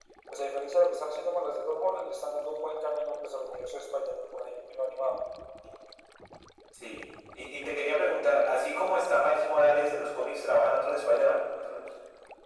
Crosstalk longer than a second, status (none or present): none